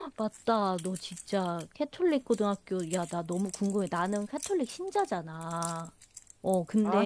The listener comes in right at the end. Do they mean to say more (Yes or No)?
No